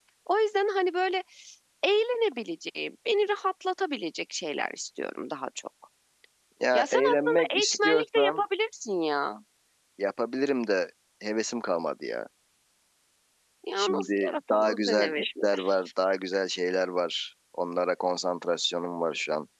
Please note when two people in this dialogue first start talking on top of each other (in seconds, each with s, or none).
6.7 s